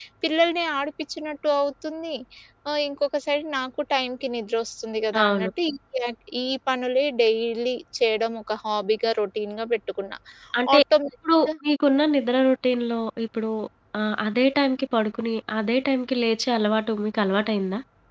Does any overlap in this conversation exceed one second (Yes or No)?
No